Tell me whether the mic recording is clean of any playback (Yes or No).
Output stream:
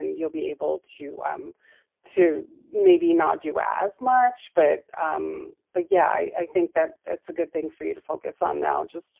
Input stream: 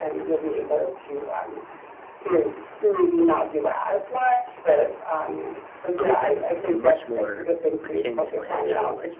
No